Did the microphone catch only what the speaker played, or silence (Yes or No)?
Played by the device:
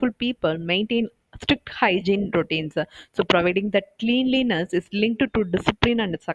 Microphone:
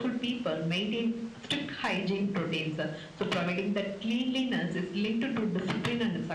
Yes